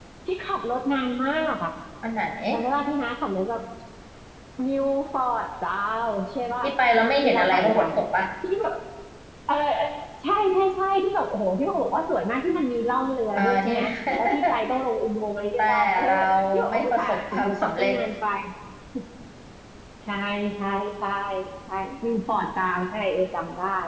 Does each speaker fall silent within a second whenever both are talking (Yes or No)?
No